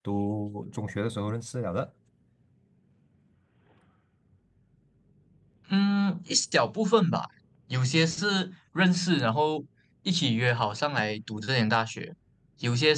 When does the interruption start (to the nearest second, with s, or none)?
none